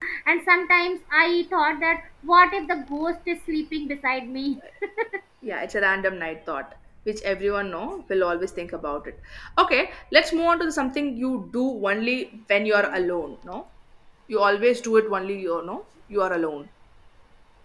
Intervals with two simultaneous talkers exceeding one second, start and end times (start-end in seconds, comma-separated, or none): none